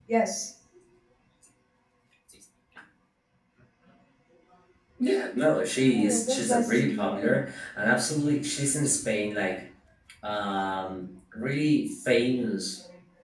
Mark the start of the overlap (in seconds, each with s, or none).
5.9 s